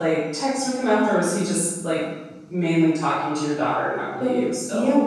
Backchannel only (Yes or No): No